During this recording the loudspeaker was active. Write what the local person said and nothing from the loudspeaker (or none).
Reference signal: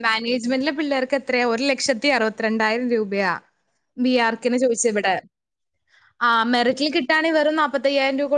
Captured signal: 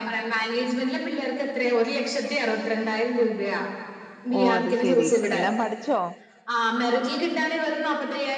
ഓ അത് ശെരി എല്ലാം പഠിച്ചോ